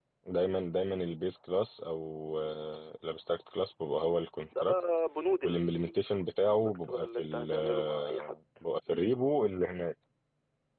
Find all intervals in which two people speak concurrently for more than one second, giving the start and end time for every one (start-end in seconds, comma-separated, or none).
5.4-8.4